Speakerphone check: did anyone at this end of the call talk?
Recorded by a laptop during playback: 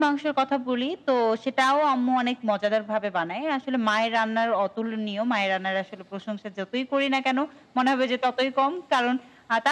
No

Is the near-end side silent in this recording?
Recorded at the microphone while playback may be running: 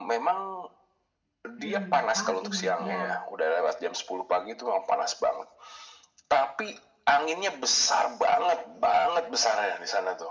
No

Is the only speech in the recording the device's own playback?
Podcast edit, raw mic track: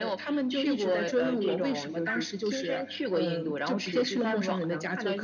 Yes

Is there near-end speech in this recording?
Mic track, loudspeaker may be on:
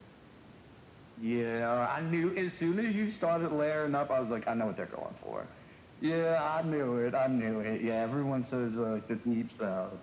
No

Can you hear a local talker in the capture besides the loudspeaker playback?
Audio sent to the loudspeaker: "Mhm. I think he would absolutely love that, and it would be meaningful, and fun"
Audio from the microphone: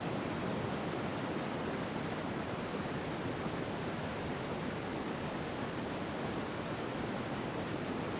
No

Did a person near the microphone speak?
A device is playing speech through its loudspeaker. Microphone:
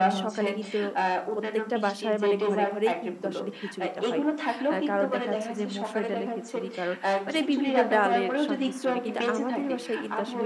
Yes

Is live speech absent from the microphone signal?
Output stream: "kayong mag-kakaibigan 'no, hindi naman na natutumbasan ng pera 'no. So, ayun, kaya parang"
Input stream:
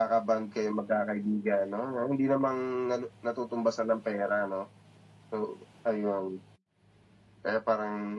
Yes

